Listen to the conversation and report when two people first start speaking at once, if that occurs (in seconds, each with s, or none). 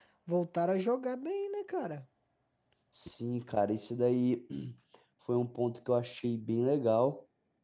none